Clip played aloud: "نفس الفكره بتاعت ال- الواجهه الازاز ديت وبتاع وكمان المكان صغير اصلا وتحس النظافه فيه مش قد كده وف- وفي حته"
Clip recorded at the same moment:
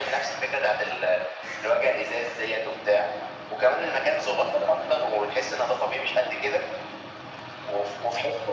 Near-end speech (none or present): none